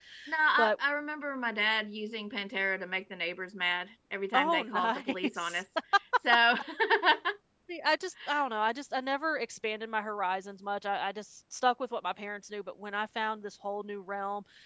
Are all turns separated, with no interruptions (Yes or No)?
No